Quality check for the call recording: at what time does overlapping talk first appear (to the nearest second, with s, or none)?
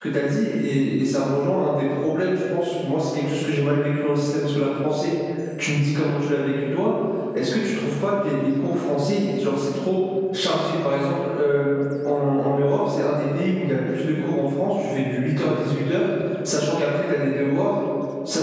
none